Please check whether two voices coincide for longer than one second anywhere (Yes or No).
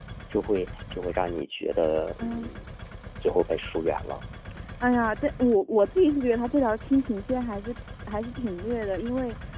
No